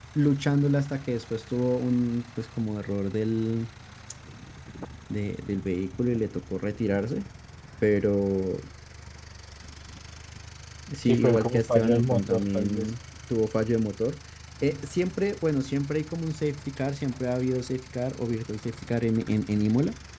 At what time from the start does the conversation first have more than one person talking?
11.1 s

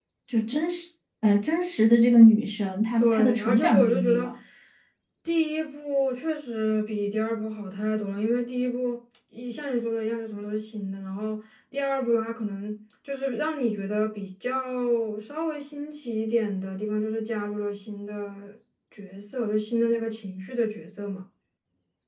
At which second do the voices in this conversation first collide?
3.0 s

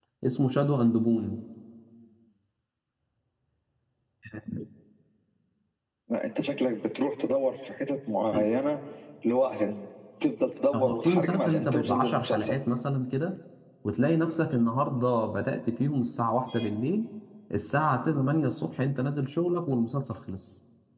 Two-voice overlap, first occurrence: 10.7 s

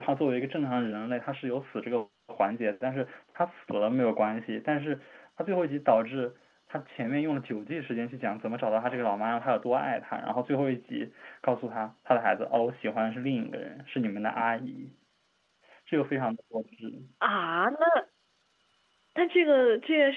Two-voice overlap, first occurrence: none

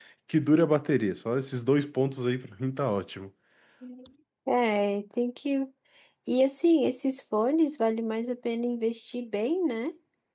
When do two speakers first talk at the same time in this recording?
none

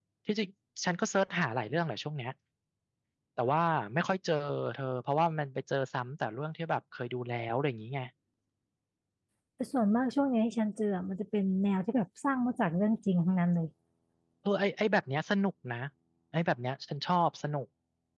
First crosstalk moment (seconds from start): none

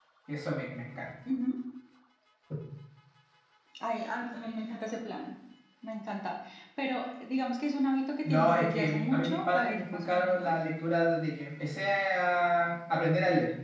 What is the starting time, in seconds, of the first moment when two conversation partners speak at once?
8.2 s

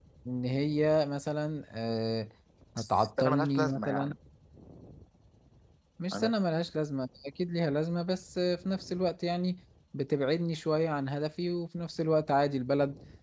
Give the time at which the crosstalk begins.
2.8 s

